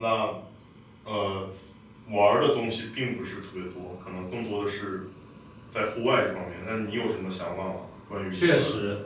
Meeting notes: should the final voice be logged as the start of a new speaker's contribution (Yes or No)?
Yes